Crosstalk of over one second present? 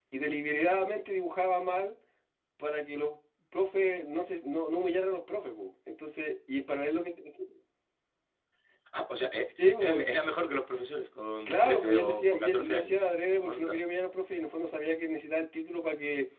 Yes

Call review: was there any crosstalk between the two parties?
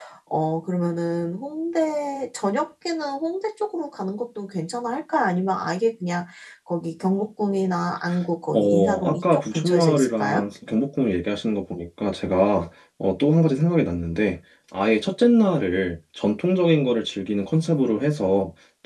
Yes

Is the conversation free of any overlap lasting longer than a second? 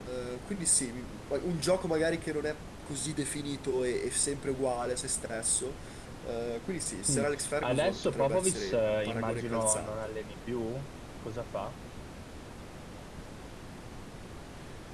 No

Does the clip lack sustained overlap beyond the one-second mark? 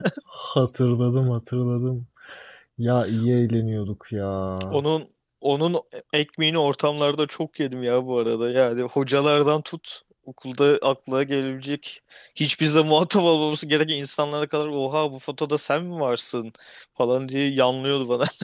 Yes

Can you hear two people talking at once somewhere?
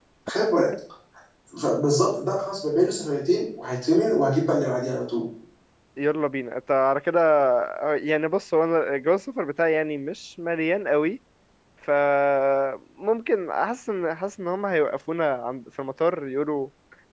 No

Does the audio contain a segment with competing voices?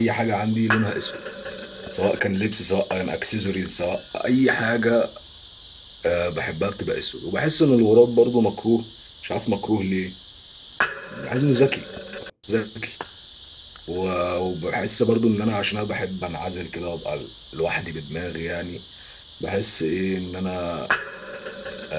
No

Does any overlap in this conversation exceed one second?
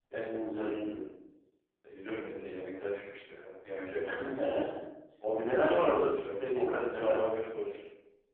Yes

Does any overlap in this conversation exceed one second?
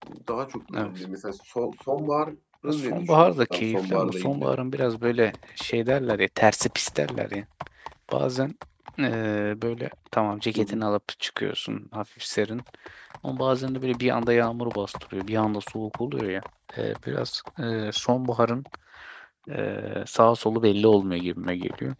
Yes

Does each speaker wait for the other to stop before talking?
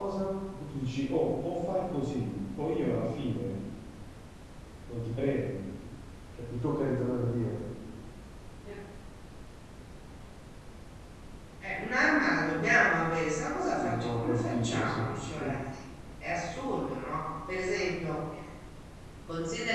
No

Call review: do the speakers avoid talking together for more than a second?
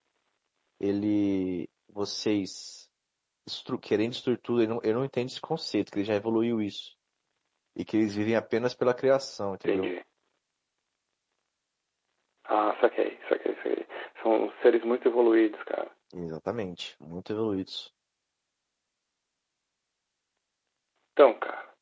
Yes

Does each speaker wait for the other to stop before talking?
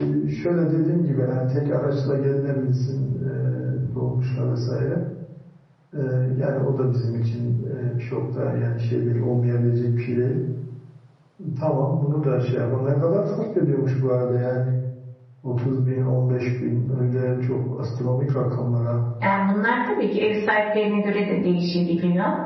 Yes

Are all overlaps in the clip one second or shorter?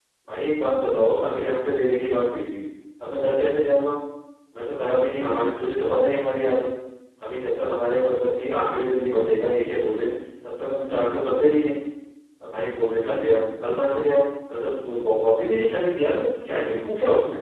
Yes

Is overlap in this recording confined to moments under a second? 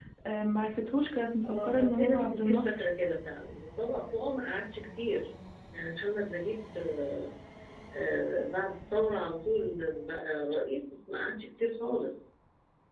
No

